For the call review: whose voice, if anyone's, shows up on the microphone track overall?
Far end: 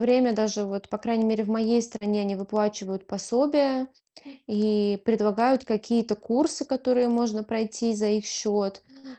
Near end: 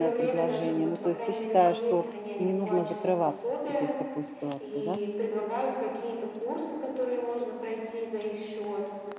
both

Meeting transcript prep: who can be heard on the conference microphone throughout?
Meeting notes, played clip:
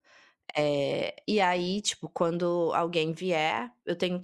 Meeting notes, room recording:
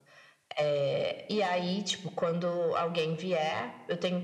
echo only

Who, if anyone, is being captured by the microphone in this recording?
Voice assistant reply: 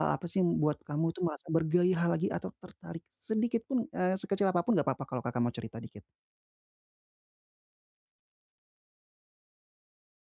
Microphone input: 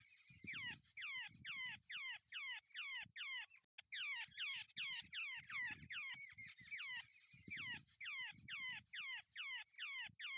neither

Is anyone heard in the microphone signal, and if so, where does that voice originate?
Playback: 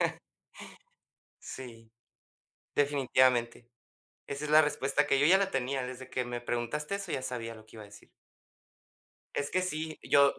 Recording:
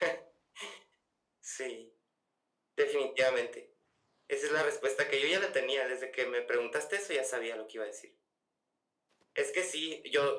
echo only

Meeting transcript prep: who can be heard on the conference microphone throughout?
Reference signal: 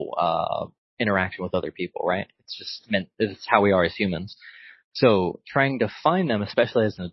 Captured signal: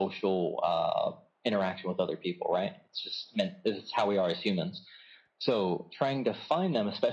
echo only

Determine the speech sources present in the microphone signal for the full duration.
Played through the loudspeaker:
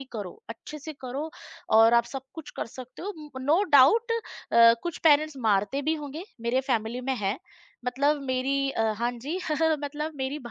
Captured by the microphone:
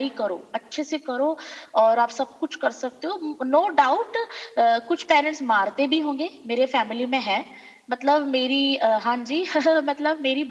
echo only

